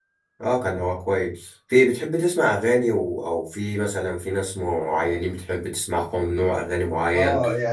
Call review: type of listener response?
taking over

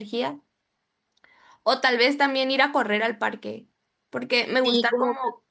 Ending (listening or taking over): listening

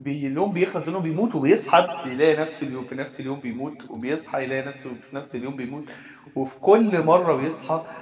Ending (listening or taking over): listening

